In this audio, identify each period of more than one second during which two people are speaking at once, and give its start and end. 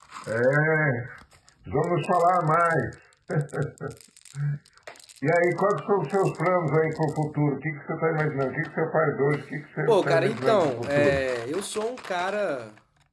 9.9-11.2

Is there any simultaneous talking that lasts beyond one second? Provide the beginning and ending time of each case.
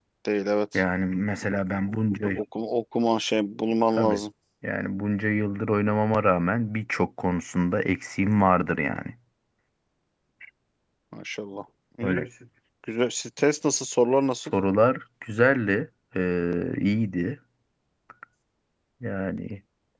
none

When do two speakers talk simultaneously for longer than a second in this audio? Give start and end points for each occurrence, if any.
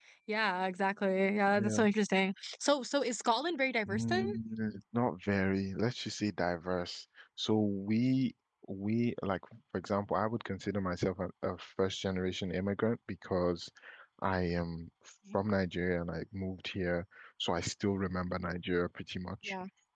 none

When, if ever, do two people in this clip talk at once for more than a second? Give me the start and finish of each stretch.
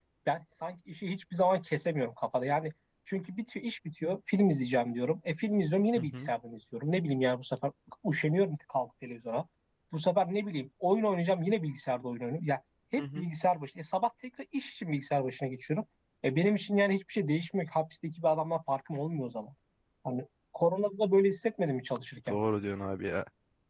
none

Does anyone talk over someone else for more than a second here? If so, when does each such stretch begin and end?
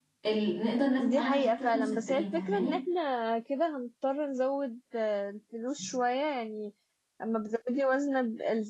1.0-2.8

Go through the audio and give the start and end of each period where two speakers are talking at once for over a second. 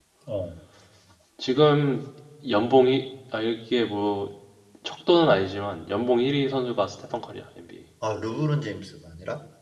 none

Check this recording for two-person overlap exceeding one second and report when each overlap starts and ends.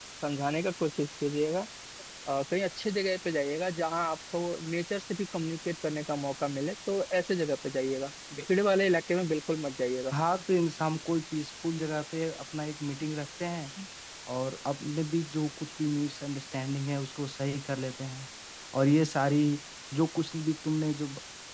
none

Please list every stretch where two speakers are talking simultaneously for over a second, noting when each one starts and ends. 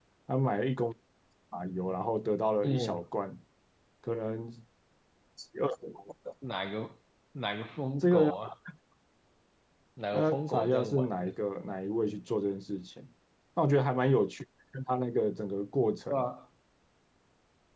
10.1-11.4

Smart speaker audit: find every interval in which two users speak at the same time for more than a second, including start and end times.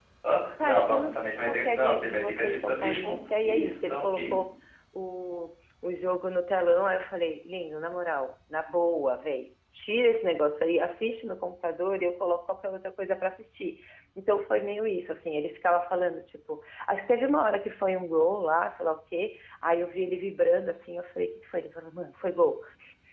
0.6-4.4

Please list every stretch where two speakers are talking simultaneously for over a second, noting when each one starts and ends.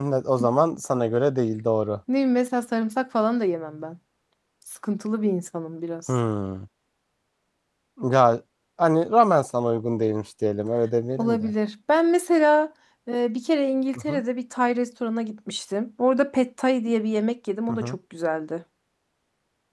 none

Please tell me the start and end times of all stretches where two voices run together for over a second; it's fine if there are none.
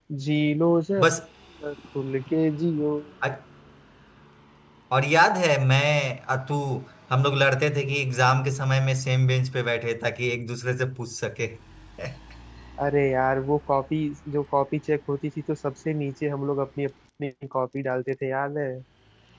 none

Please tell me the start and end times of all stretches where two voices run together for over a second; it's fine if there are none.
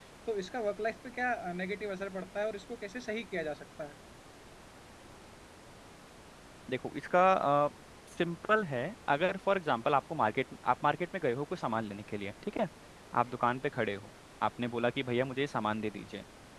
none

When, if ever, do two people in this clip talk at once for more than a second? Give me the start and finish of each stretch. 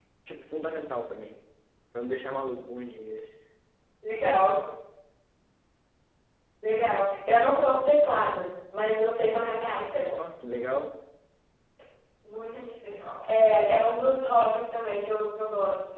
none

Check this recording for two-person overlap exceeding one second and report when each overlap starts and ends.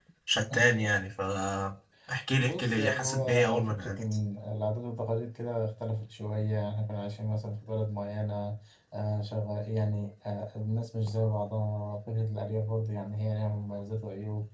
2.4-4.0

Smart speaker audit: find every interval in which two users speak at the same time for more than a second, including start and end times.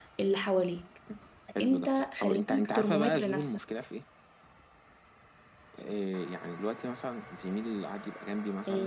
1.6-3.6

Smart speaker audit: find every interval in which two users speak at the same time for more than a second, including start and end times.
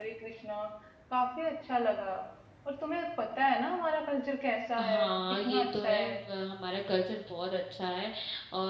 4.8-6.1

